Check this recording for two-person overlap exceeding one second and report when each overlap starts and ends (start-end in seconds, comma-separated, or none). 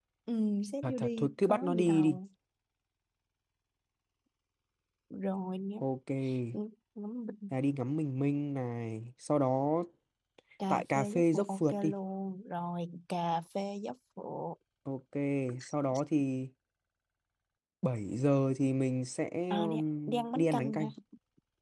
0.8-2.2, 10.7-11.9, 19.5-20.8